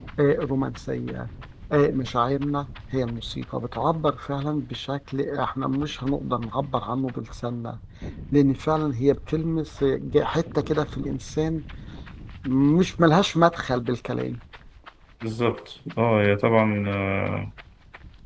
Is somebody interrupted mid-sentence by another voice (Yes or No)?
No